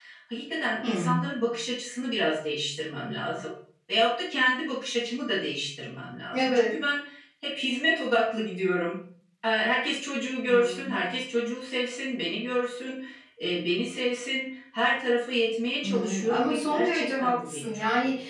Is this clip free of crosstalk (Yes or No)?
No